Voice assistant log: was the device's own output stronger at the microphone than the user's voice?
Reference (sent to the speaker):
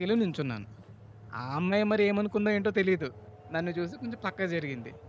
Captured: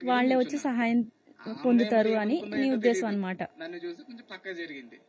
No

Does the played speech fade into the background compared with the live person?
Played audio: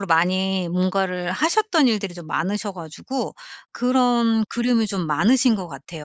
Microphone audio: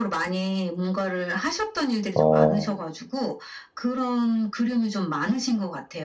Yes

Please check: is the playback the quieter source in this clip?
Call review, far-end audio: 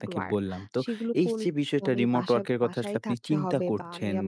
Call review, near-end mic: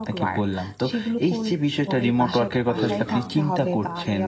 No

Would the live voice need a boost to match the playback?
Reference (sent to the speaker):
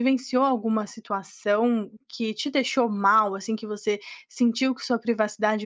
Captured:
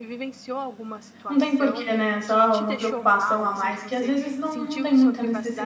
No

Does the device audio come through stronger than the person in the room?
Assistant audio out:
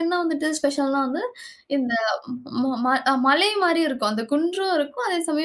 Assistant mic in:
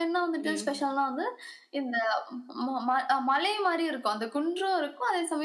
Yes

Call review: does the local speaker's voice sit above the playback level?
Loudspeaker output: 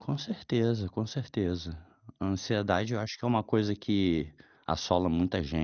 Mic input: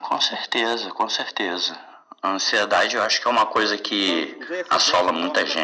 No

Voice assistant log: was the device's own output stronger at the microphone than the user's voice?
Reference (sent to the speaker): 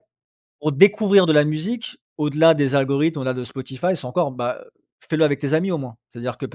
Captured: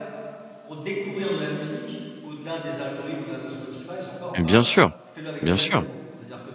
No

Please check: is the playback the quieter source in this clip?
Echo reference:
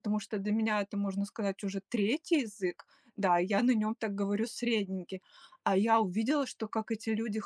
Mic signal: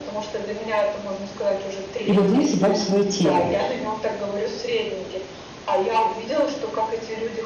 Yes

